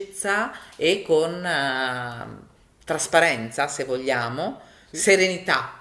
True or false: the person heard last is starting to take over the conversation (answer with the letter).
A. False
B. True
A